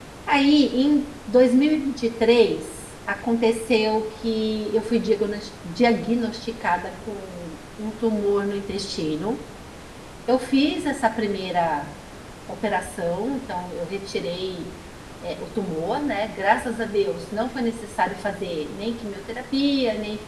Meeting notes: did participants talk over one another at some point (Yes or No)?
No